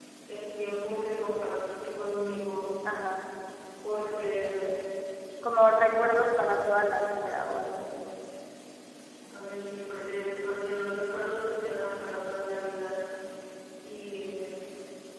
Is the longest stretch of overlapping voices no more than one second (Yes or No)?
Yes